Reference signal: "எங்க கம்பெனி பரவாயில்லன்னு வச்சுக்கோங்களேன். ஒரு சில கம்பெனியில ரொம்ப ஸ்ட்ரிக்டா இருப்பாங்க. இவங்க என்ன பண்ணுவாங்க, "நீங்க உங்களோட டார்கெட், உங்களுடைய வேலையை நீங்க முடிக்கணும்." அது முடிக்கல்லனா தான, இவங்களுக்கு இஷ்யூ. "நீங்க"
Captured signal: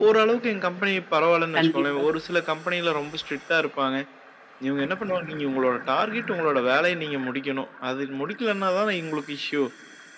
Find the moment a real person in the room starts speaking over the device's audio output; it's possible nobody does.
1.6 s

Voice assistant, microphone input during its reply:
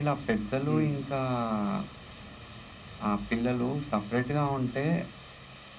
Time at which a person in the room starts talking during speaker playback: 0.7 s

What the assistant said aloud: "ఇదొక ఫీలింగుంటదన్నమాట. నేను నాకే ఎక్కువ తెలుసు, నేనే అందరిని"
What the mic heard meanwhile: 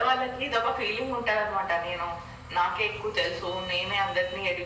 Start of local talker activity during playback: none

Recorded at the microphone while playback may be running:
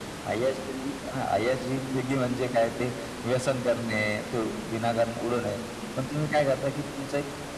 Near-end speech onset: none

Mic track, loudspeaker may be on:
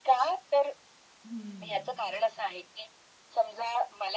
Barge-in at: 1.2 s

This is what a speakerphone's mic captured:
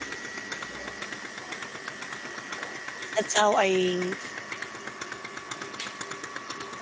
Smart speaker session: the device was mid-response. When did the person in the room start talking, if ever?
3.1 s

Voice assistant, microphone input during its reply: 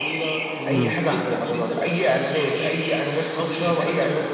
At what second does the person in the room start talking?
0.6 s

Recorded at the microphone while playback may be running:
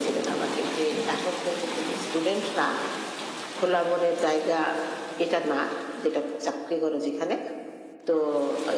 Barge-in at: none

